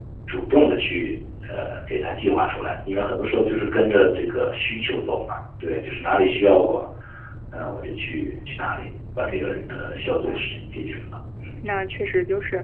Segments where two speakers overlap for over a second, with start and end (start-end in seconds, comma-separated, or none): 9.2-10.7